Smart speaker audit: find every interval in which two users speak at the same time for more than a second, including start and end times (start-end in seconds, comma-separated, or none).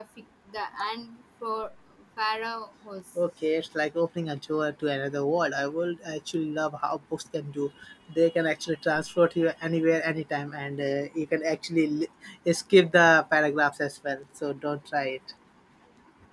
none